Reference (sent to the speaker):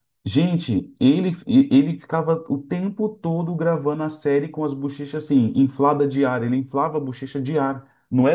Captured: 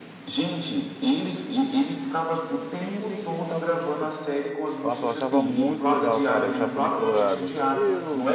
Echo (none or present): present